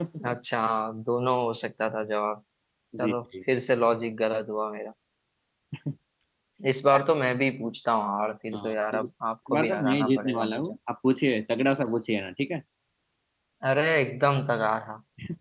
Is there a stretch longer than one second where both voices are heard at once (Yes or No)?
Yes